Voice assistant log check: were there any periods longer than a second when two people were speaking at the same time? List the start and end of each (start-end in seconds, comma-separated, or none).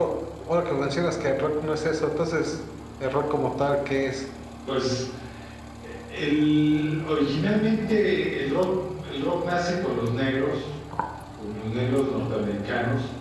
none